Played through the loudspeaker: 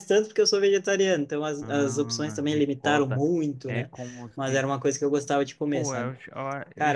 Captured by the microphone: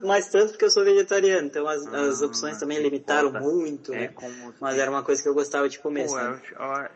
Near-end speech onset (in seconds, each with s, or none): none